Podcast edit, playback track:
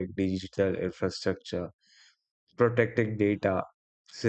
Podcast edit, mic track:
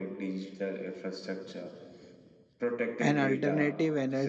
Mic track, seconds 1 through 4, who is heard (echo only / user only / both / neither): both